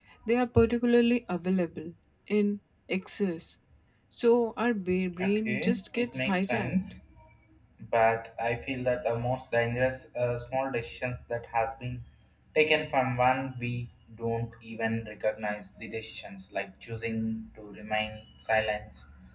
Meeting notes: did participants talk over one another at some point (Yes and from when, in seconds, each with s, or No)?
Yes, from 5.2 s